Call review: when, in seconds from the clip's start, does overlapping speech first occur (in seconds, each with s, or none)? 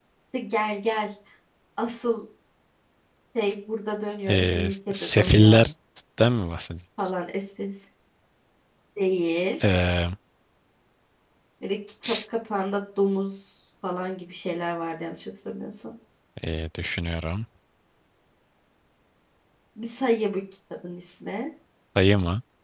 4.3 s